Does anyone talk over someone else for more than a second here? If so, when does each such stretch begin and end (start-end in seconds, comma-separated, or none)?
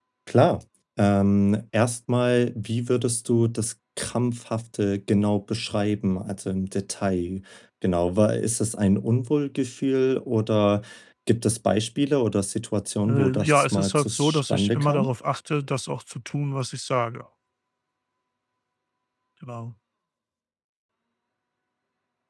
13.1-15.1